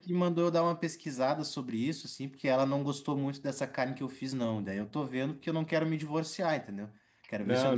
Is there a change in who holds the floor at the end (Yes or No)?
No